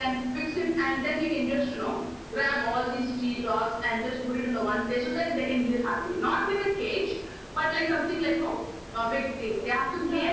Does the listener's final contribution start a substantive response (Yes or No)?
Yes